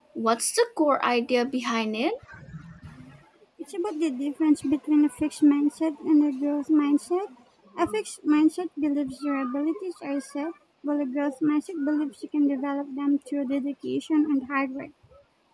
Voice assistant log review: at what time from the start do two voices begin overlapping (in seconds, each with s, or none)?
none